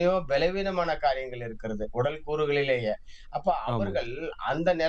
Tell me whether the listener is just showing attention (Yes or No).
Yes